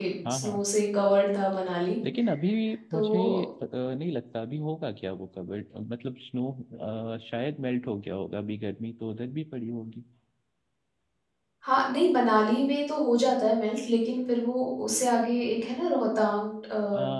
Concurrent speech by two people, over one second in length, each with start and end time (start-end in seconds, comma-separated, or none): none